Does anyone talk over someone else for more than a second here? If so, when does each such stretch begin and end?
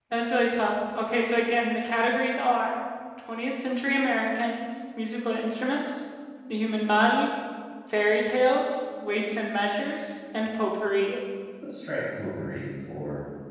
none

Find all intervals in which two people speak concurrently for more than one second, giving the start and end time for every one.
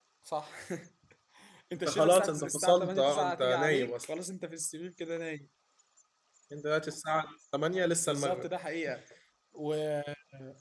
1.8-4.1

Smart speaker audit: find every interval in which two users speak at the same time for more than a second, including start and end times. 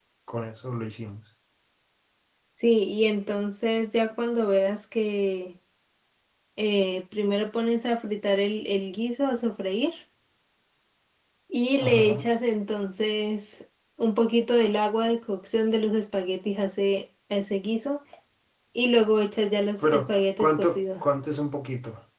19.8-21.0

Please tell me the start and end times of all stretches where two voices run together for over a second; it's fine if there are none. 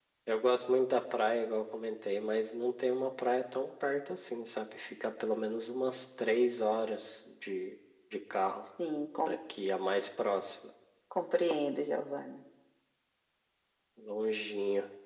none

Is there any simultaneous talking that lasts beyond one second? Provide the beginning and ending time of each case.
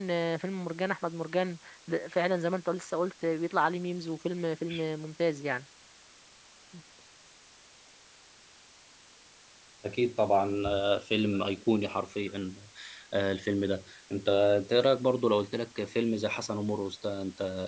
none

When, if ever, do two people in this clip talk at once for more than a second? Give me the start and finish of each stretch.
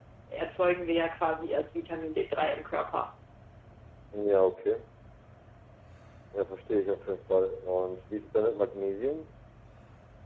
none

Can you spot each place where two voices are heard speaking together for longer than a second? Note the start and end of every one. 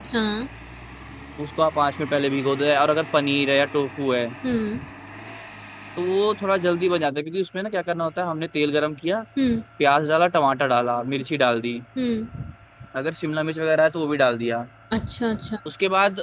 none

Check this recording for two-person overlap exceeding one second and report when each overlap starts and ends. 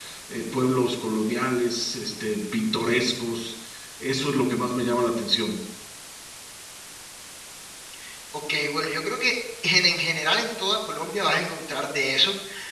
none

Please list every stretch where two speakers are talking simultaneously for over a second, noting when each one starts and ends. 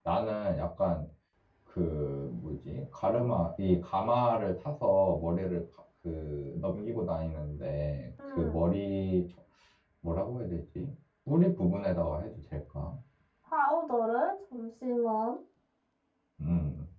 none

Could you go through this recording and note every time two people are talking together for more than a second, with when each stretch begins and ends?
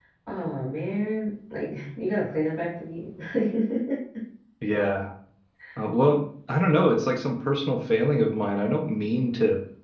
none

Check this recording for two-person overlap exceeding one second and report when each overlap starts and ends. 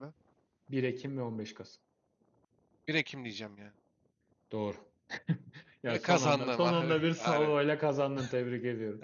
5.9-7.5

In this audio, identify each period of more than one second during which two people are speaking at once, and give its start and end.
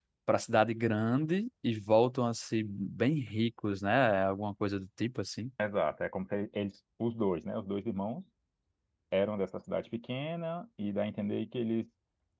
none

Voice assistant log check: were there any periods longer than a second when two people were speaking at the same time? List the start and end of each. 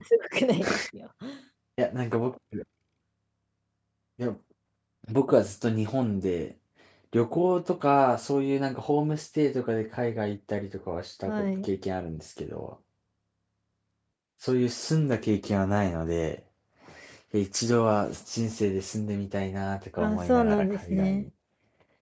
20.0-21.2

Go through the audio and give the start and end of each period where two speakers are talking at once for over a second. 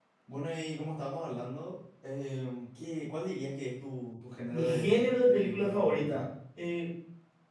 4.5-6.2

